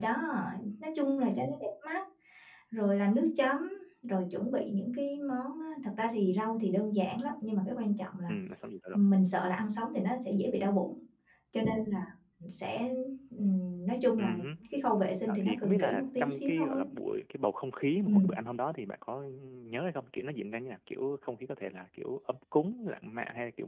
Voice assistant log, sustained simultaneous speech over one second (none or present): present